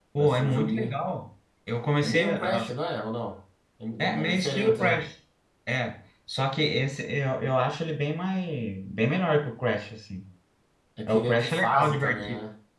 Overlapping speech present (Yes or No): Yes